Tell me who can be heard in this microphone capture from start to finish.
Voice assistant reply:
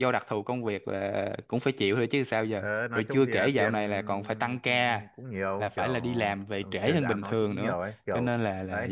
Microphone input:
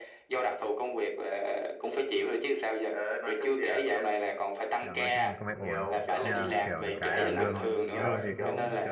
both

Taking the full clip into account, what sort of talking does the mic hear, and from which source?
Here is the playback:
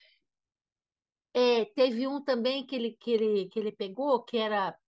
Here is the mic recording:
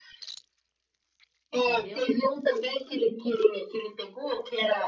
both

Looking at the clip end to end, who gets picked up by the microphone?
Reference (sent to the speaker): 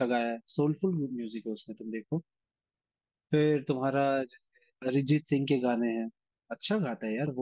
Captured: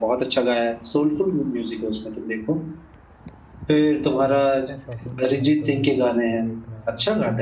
both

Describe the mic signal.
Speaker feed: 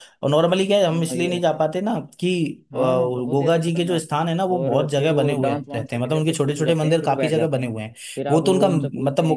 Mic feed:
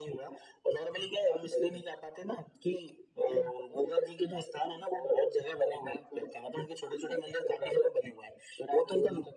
echo only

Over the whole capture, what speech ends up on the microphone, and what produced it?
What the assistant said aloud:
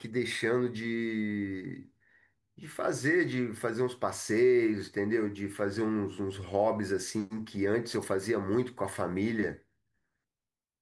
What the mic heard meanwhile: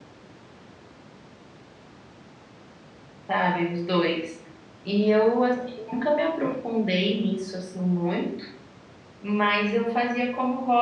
user only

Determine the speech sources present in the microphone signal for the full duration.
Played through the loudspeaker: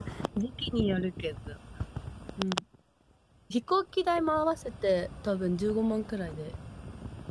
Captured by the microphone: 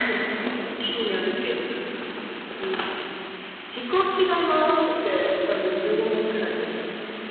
echo only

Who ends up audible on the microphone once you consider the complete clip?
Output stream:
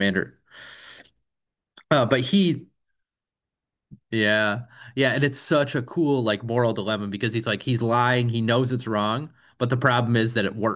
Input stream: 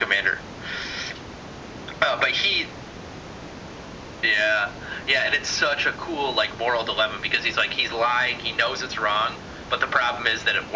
echo only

